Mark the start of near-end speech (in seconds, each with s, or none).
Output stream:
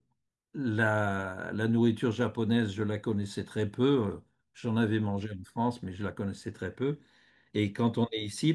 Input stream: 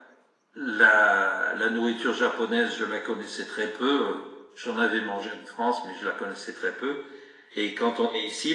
none